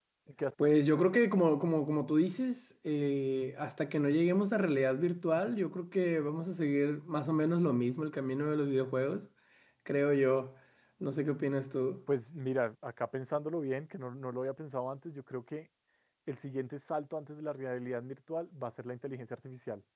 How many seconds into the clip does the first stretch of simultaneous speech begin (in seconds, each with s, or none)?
none